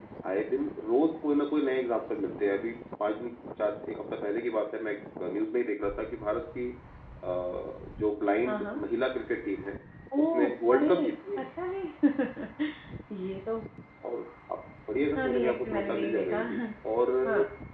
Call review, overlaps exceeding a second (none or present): present